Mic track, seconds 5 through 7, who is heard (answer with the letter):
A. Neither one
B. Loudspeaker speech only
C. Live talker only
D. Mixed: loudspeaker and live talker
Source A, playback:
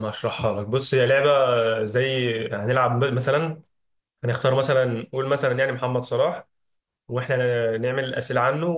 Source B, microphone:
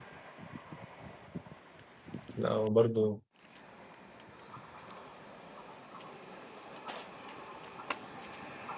A